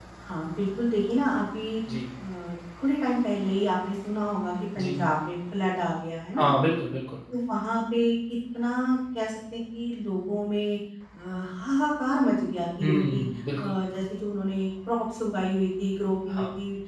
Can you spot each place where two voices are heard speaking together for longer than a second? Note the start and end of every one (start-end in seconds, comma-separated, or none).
none